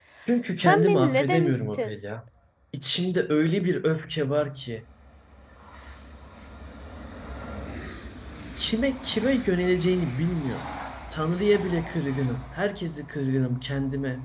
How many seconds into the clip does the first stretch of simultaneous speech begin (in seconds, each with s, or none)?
0.6 s